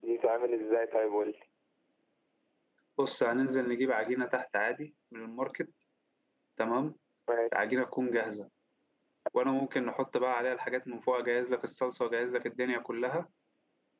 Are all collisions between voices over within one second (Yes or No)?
Yes